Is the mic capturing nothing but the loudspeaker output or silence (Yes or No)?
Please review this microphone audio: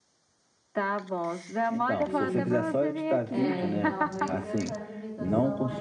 No